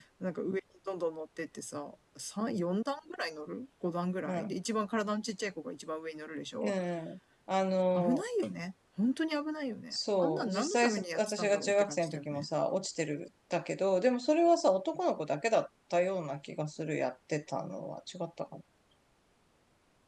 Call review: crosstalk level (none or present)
present